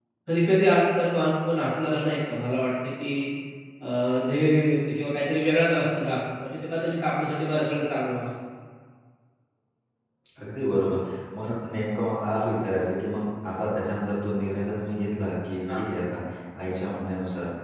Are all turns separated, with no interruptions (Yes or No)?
Yes